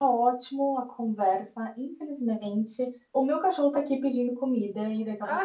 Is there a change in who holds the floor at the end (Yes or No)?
No